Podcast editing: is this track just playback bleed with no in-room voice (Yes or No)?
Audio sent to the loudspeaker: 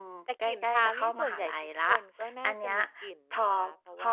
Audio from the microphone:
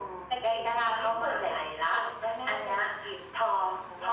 Yes